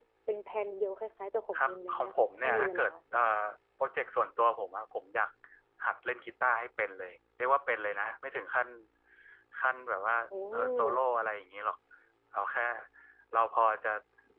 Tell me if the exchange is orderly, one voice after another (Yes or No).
No